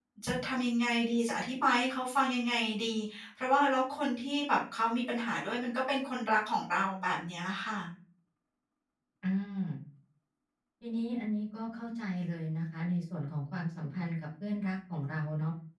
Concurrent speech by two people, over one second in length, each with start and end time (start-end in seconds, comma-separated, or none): none